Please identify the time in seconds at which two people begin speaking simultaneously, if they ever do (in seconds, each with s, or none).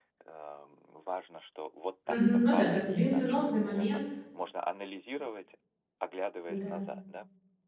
2.1 s